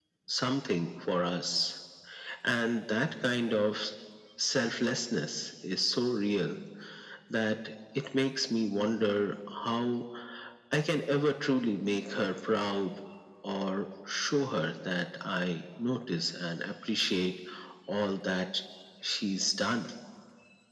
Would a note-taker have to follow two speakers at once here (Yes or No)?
No